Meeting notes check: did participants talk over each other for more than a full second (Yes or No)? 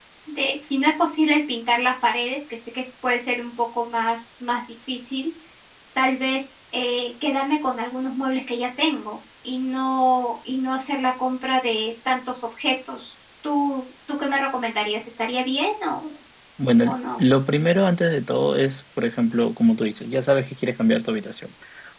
No